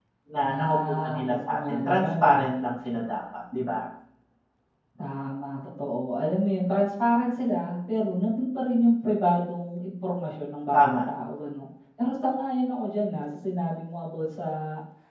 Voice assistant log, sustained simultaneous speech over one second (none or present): present